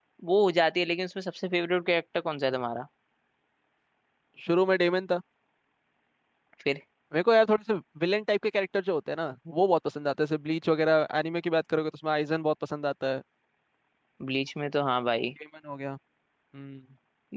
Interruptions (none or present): none